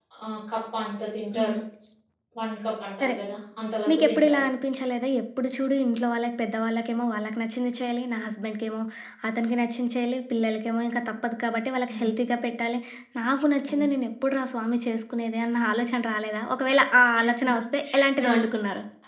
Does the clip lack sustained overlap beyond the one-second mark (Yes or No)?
Yes